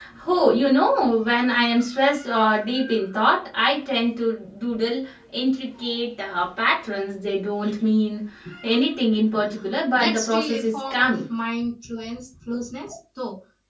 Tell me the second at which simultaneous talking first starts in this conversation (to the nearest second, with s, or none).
10 s